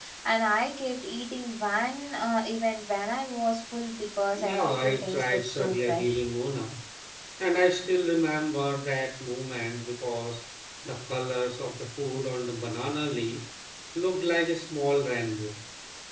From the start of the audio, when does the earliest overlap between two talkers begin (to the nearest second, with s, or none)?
4 s